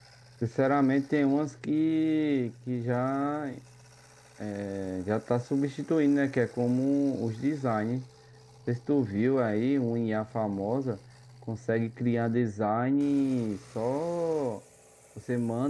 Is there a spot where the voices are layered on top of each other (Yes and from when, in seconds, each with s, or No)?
No